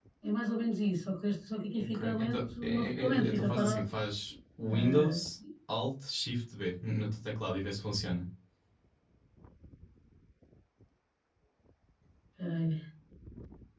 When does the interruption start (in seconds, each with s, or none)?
1.9 s